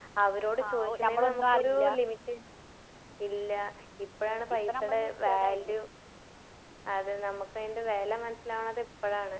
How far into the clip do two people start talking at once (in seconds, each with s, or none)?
0.7 s